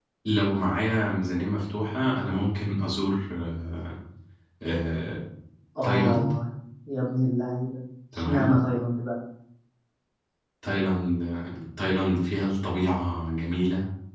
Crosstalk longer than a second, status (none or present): none